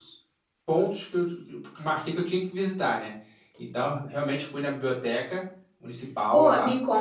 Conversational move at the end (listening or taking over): taking over